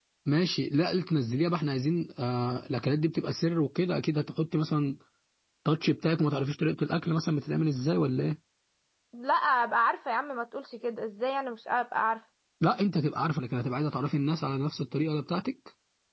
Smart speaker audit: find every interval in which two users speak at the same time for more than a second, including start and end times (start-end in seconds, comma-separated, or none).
none